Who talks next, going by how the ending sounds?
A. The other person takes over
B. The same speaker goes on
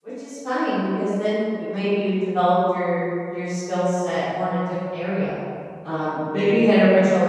B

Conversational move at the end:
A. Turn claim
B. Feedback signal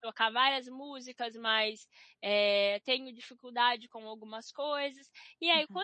B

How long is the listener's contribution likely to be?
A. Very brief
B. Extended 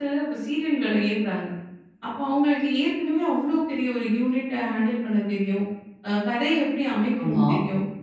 A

